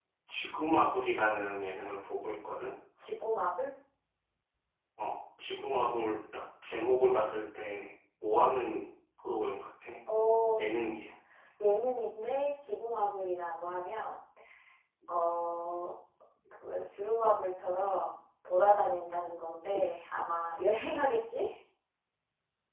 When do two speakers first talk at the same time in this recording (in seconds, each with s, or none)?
none